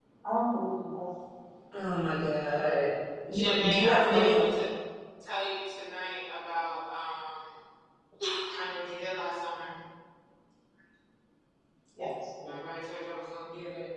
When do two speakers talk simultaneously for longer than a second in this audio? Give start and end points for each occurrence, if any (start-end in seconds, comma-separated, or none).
3.3-4.6